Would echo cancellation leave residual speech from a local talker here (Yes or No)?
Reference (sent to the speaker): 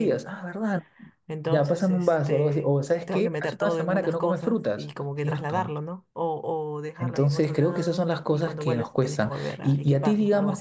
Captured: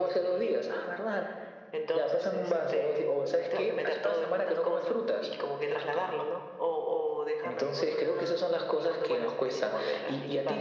No